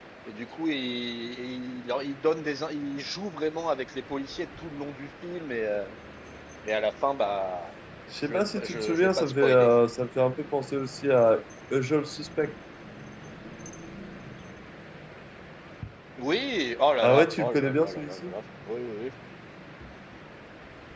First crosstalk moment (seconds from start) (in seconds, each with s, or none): 8.3 s